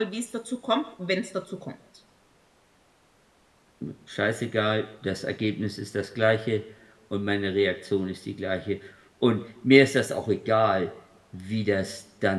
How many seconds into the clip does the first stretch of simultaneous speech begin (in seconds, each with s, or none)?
none